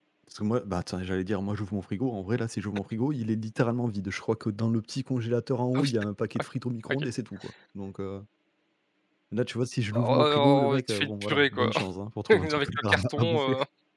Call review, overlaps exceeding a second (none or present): present